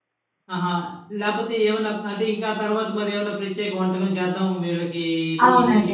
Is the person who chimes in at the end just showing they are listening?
No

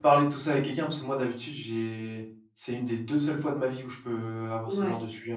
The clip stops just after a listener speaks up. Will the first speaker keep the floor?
No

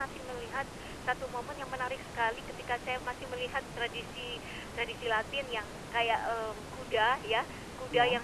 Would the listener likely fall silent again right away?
Yes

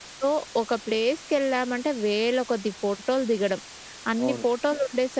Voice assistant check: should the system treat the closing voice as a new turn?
No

